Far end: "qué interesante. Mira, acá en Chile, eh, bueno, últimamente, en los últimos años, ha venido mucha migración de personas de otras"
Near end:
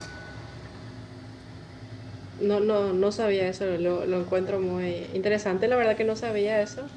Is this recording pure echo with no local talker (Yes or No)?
No